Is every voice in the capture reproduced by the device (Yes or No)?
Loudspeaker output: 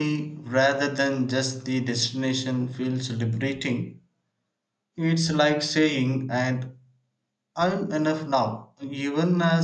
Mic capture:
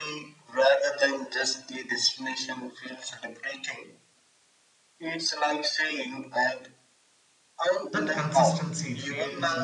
No